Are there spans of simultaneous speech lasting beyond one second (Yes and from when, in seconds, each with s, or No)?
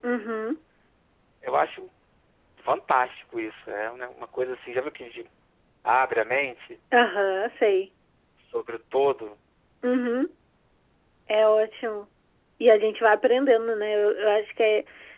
No